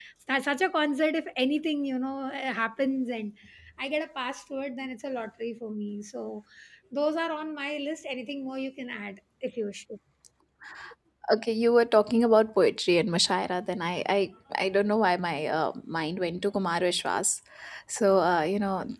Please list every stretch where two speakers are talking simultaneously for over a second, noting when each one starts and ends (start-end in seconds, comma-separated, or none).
none